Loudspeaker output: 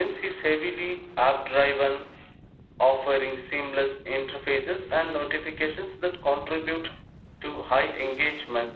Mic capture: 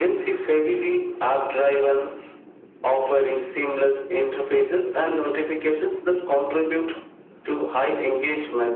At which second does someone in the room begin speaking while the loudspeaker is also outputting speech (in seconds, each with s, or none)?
none